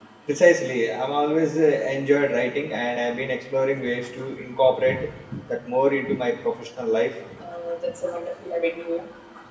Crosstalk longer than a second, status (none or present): none